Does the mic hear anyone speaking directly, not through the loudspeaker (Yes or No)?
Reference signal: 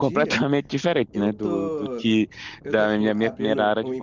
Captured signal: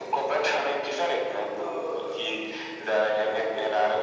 No